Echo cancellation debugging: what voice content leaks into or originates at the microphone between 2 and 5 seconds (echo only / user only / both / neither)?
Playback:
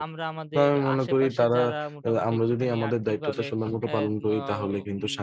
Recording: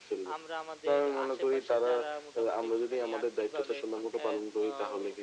echo only